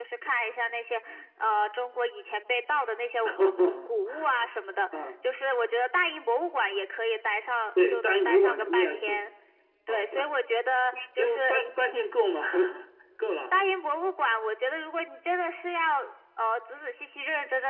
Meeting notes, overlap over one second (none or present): present